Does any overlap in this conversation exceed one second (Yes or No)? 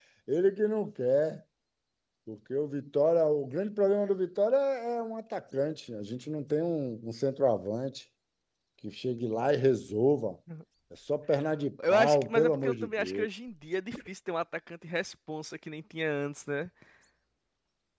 Yes